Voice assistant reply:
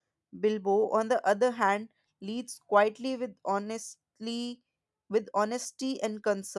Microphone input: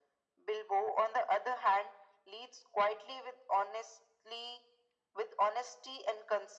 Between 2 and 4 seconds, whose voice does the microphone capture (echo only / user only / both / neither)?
echo only